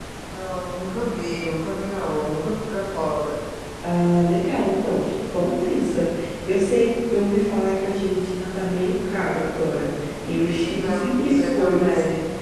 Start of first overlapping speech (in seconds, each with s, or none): 10.6 s